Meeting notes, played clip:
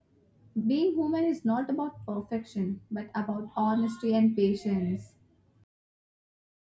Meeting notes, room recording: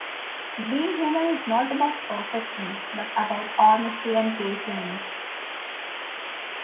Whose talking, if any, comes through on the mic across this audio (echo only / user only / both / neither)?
echo only